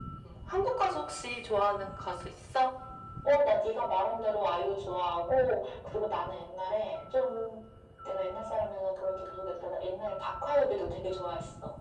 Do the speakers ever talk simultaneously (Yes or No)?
No